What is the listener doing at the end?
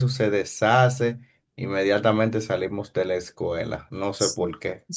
taking over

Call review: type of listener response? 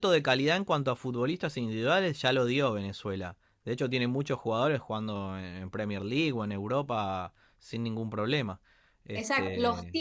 taking over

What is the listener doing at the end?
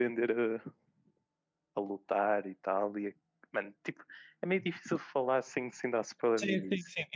taking over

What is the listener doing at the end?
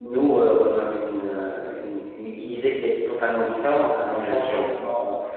listening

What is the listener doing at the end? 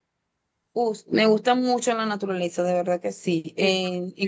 listening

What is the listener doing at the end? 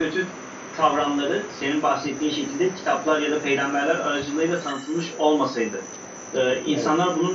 listening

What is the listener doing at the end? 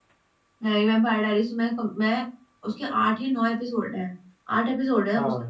listening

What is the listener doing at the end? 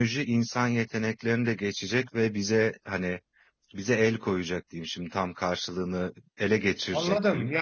taking over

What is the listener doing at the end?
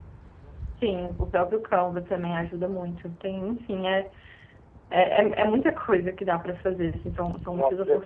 taking over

